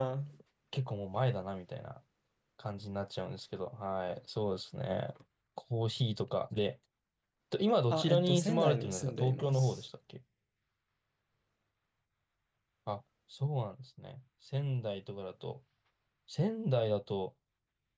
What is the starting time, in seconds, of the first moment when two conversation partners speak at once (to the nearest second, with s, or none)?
8 s